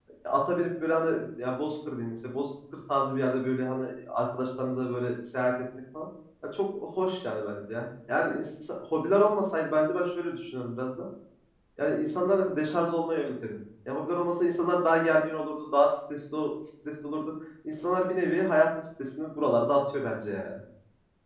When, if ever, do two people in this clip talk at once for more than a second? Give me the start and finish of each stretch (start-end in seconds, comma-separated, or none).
none